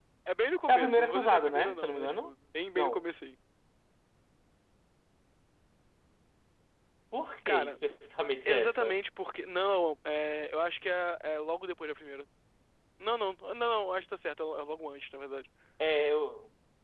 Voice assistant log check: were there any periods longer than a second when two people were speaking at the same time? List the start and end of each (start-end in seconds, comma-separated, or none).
0.7-2.3